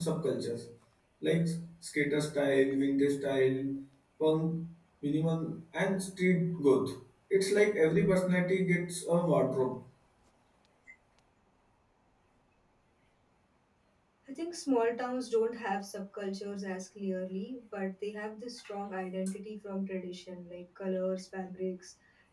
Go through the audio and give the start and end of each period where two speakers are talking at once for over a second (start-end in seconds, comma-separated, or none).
none